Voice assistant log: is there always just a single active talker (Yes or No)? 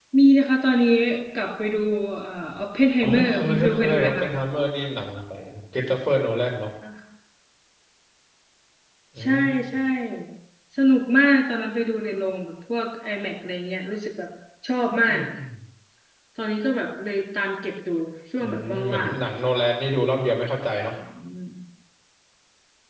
No